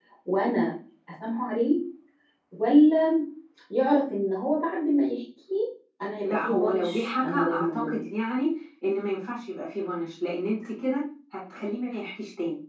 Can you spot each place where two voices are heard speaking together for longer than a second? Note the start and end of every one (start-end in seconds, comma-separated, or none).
6.2-8.0